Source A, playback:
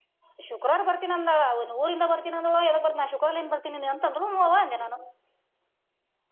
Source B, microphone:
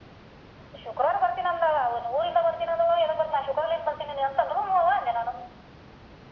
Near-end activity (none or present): none